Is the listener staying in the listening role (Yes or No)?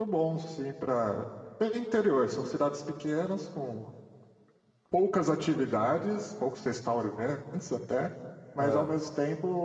Yes